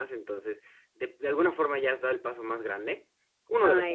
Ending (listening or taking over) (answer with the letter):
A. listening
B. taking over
A